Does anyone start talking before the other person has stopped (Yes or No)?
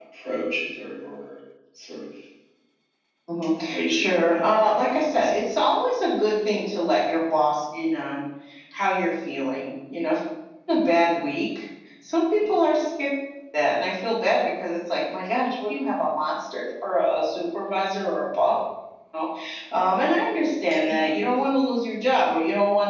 Yes